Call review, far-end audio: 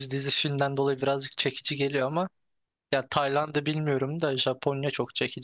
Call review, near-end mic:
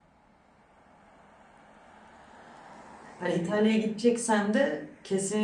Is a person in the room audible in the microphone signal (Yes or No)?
Yes